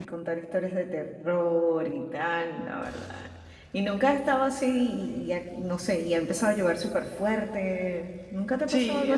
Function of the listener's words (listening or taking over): taking over